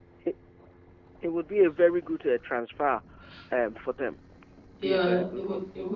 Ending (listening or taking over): taking over